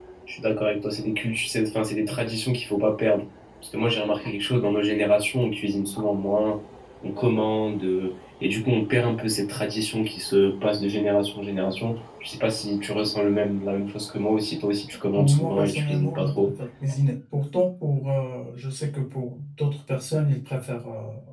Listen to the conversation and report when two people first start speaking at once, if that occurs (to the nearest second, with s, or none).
15 s